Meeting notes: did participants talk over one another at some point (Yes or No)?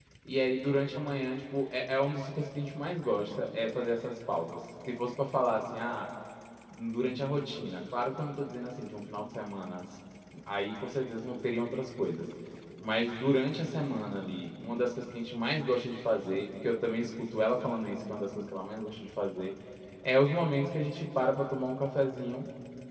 No